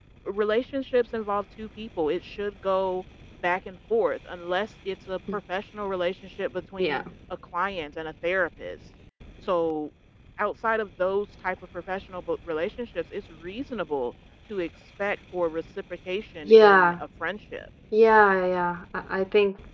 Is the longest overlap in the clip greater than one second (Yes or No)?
No